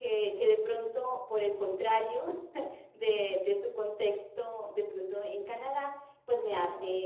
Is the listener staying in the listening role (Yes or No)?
Yes